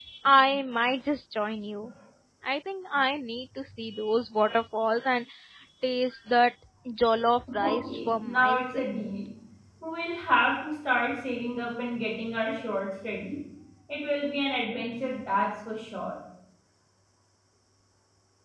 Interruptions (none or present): present